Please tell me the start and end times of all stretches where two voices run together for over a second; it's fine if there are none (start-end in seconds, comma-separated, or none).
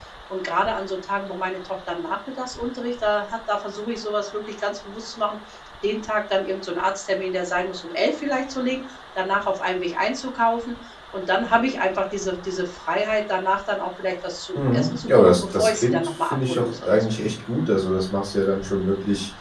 14.5-17.1